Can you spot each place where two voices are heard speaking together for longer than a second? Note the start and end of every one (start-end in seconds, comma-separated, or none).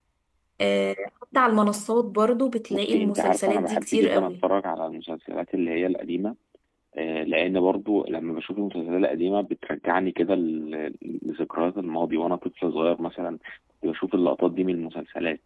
2.7-4.4